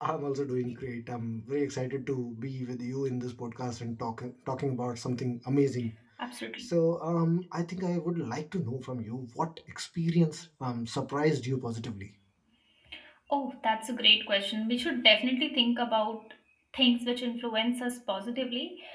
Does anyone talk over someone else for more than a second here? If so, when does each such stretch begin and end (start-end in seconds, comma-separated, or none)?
none